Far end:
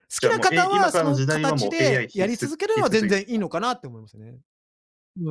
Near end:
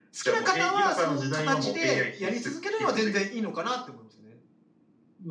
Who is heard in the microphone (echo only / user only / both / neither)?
echo only